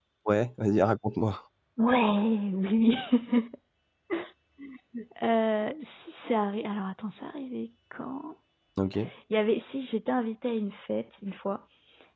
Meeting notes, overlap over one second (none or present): none